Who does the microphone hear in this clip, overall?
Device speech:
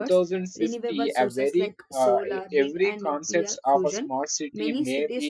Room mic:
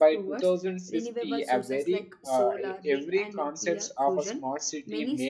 echo only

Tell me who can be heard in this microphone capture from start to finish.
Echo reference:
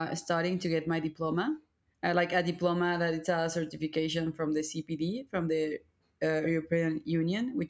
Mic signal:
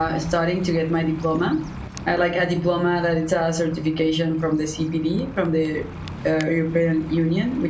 echo only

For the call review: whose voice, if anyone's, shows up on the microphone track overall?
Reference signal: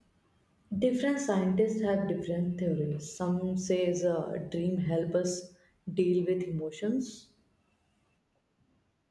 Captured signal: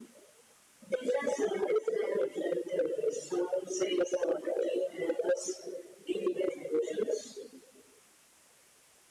echo only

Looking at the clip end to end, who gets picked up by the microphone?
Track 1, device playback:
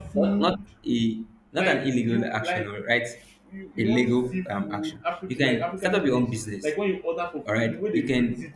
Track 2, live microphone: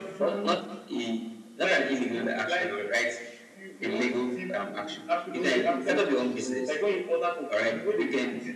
both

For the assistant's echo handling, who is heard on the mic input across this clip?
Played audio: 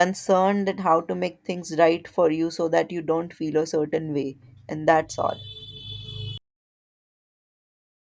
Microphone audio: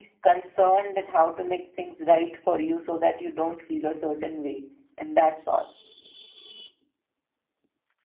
echo only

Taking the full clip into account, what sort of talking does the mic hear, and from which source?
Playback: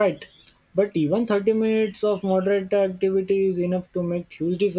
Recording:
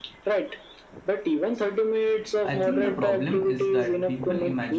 both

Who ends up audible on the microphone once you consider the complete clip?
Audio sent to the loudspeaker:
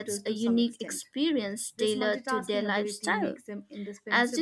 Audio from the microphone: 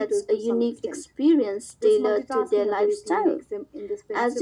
echo only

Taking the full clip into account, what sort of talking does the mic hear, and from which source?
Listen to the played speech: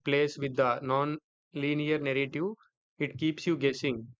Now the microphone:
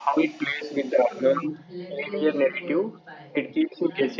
both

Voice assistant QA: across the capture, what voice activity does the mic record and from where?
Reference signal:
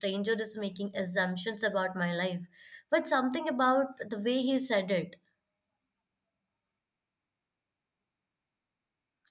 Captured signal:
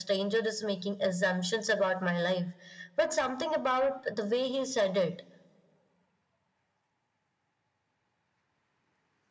echo only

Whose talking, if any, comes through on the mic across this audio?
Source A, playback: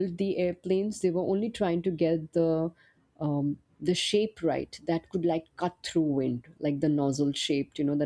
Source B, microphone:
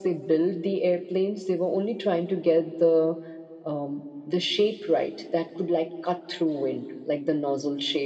echo only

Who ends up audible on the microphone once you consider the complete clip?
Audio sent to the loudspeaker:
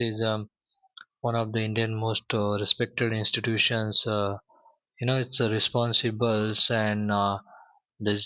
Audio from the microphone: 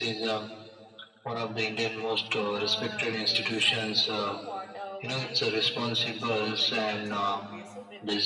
both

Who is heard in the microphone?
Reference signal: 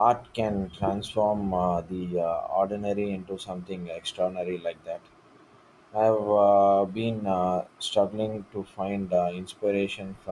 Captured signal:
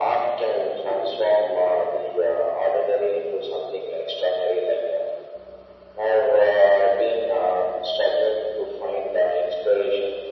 echo only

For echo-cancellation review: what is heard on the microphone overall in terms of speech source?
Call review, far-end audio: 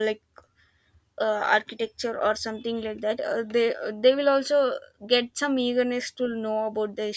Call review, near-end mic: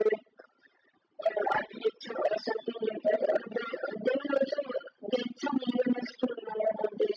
echo only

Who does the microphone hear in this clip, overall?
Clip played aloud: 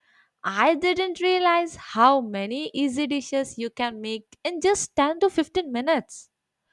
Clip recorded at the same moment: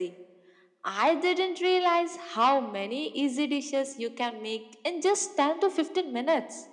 echo only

